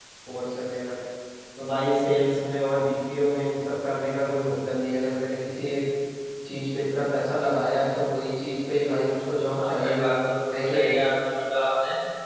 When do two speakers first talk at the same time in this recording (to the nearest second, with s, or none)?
10 s